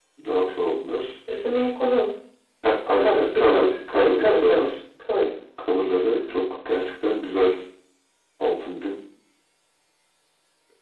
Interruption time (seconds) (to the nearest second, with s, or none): 3 s